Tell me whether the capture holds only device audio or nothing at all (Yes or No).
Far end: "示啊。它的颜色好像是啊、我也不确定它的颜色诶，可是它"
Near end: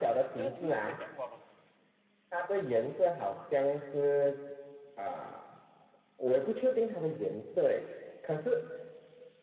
No